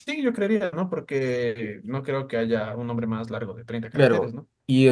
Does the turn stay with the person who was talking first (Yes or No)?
No